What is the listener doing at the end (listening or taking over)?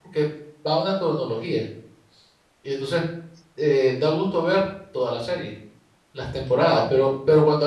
listening